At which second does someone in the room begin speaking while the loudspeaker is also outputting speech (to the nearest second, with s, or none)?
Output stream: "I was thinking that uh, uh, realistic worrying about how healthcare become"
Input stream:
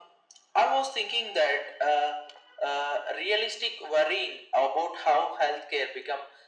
none